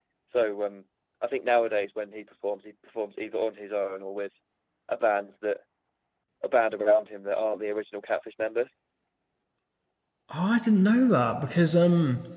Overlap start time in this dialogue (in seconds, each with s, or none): none